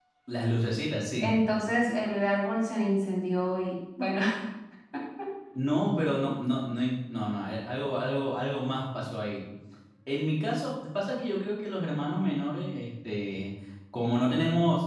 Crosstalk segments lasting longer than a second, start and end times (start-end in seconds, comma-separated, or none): none